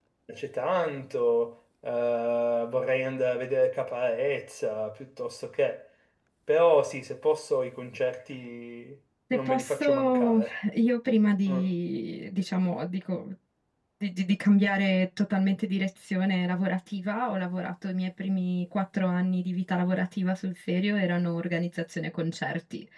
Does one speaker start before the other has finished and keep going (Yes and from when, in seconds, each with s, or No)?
Yes, from 9.3 s